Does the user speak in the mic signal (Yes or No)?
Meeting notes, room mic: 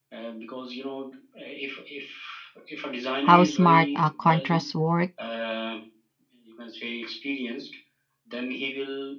Yes